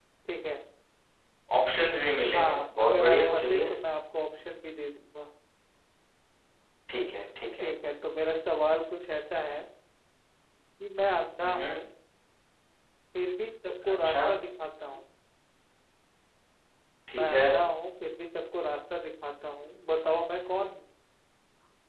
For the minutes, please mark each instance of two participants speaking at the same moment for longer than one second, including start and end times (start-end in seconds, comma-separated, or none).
2.3-3.6